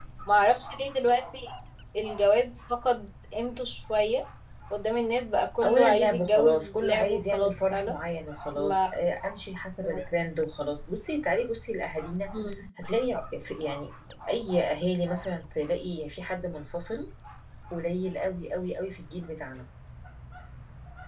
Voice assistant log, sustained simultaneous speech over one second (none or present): present